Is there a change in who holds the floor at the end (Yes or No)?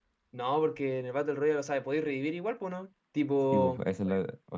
Yes